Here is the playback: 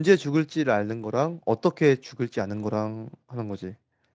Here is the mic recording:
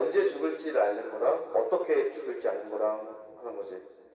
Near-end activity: none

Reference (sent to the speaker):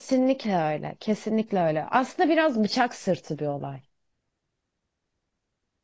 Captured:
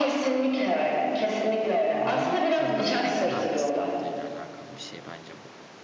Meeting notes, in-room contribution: present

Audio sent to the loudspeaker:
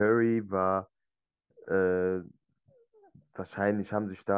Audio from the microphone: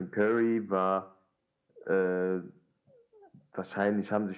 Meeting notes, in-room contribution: none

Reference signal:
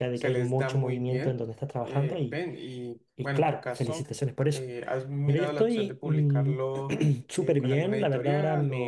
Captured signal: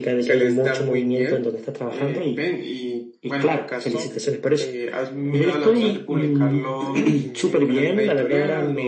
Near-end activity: present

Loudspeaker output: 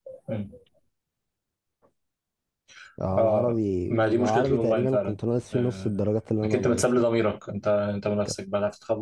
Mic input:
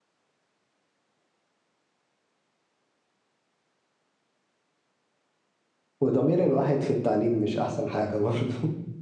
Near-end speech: present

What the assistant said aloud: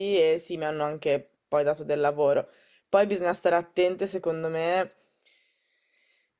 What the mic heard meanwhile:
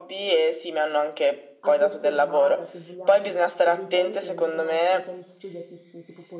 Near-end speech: present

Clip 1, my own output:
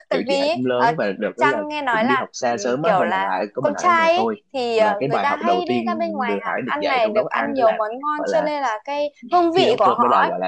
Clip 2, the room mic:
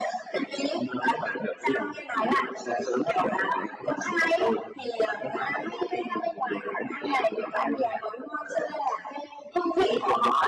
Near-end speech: none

